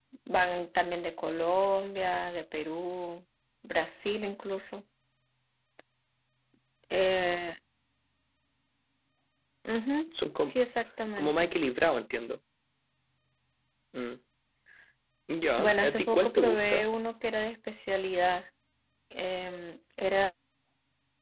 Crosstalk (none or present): present